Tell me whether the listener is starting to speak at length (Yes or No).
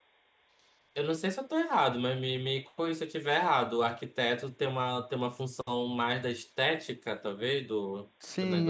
Yes